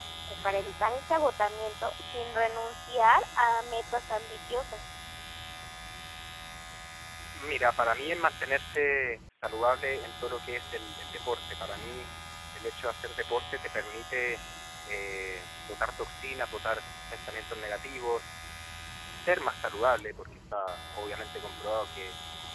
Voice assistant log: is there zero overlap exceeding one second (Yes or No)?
Yes